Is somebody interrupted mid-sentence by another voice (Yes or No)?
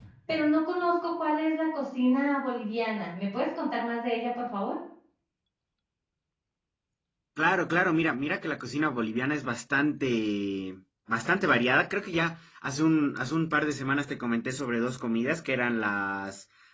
No